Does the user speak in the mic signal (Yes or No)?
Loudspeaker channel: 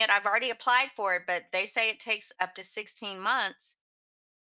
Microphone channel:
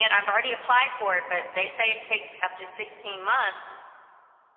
No